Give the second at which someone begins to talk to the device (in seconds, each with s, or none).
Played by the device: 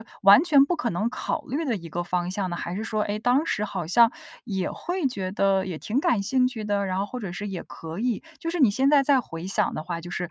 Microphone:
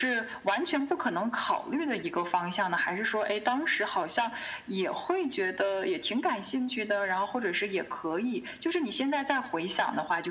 none